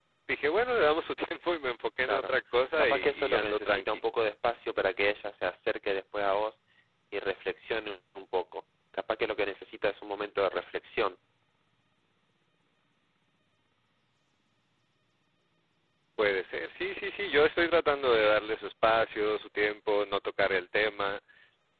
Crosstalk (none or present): present